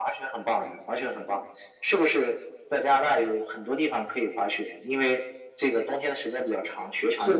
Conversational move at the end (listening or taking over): taking over